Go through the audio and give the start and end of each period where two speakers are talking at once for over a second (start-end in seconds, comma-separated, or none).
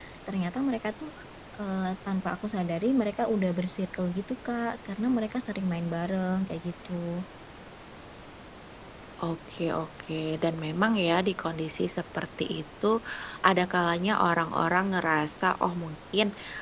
none